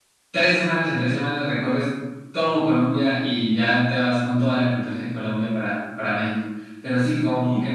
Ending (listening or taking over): listening